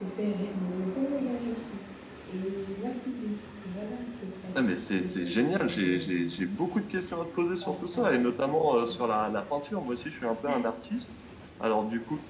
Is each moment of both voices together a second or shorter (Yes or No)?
No